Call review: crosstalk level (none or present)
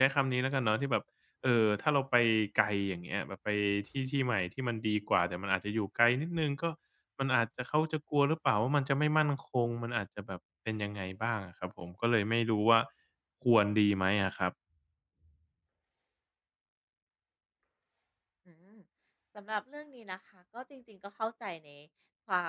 none